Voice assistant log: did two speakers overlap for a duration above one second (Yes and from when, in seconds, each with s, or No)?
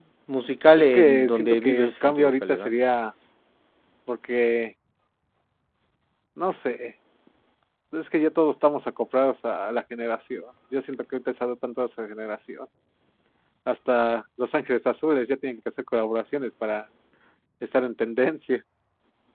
Yes, from 0.8 s